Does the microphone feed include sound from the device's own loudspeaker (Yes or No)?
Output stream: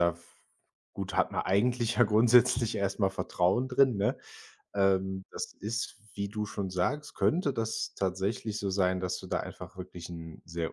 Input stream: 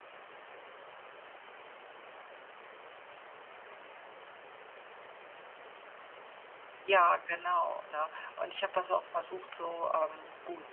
No